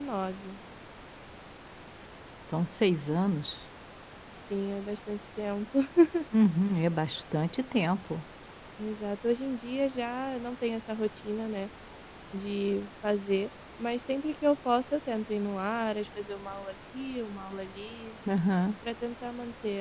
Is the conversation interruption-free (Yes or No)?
Yes